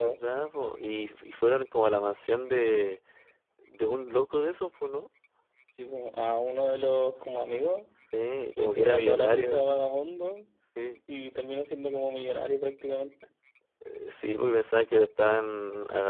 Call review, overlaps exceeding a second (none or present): present